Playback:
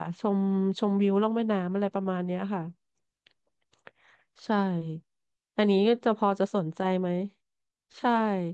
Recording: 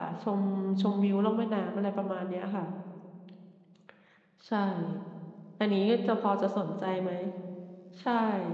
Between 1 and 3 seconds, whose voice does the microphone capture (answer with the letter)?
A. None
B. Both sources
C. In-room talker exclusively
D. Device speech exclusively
D